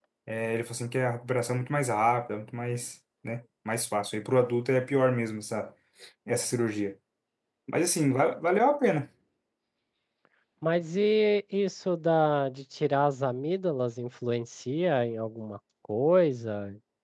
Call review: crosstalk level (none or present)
none